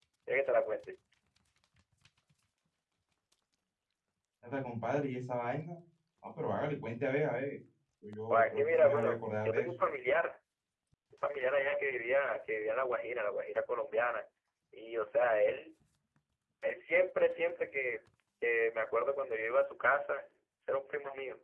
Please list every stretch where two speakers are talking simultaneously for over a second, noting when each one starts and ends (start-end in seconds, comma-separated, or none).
8.3-9.7